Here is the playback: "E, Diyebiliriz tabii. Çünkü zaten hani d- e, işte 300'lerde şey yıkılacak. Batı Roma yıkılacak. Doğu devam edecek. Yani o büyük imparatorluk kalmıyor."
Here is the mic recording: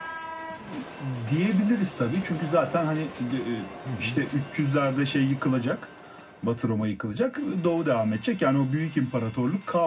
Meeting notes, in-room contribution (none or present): present